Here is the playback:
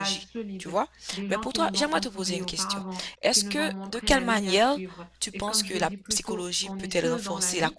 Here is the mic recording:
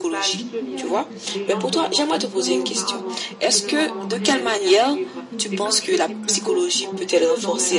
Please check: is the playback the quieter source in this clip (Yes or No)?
No